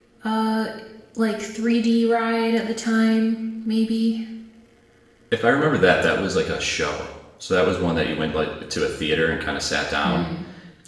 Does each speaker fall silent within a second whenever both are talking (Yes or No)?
Yes